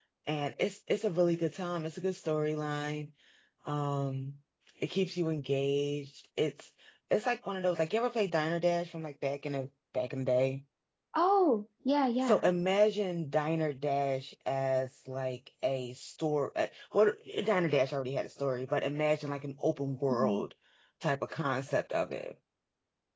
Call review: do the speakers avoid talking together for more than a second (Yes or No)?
Yes